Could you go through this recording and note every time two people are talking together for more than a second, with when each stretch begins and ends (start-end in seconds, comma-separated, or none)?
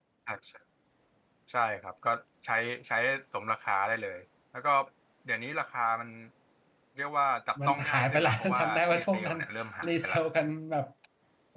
7.7-9.4